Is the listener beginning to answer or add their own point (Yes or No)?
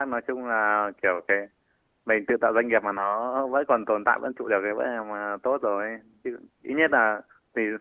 No